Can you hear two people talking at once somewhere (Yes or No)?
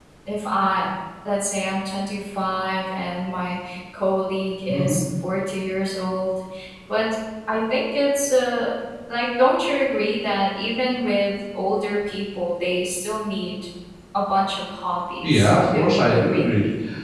Yes